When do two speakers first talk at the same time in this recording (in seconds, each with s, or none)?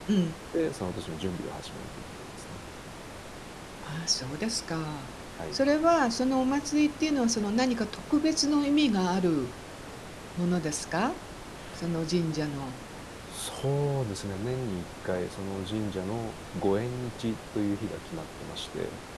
none